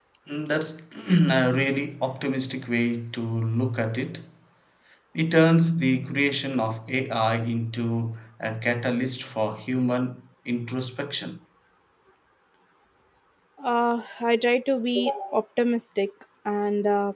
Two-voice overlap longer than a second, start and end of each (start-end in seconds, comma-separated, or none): none